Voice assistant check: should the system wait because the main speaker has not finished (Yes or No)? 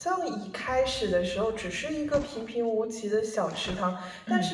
Yes